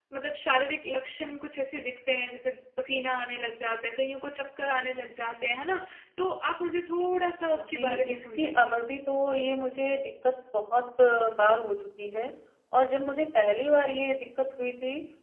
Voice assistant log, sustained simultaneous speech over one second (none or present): present